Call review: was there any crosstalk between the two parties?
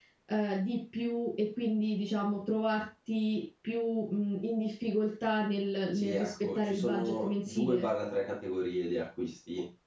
Yes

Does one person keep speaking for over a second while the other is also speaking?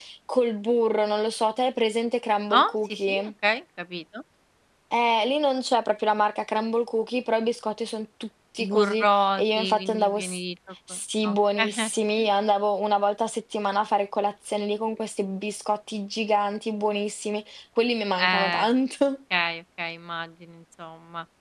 Yes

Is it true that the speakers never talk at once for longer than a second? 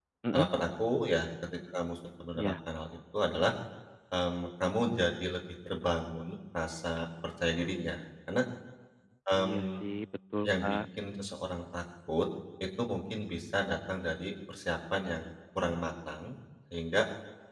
Yes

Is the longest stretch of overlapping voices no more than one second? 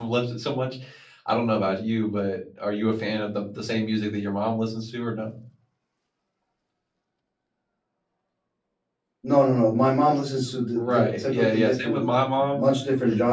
No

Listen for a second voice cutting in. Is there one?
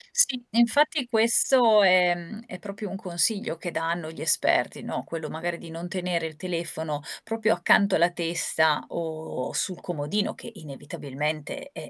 No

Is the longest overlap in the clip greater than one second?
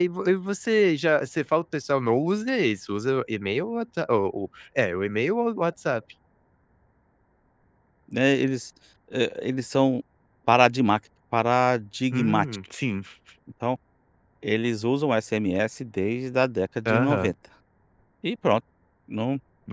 No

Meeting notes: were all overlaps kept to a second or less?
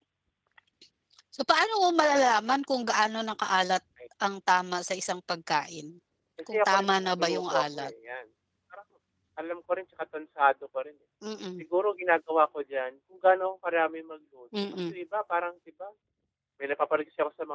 No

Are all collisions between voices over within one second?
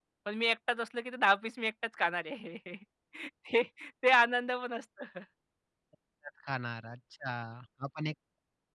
Yes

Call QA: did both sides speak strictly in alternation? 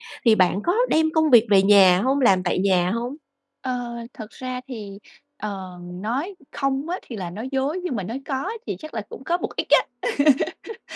Yes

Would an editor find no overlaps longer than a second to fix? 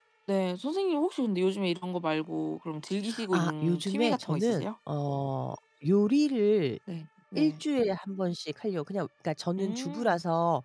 No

